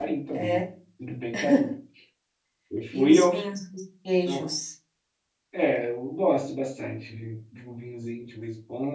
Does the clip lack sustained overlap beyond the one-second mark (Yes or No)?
Yes